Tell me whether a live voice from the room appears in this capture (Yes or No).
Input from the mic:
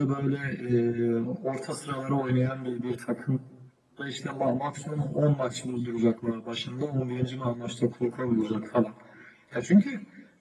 No